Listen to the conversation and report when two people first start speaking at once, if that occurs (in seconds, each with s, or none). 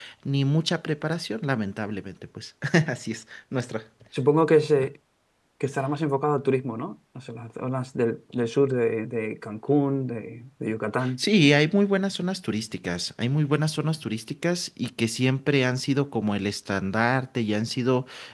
none